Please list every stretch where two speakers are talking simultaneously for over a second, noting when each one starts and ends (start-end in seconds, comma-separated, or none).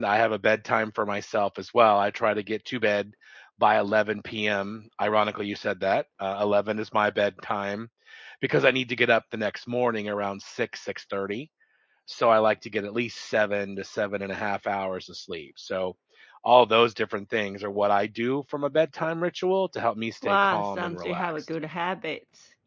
20.2-21.5